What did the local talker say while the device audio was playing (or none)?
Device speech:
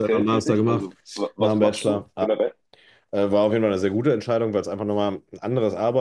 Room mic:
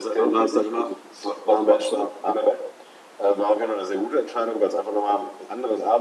none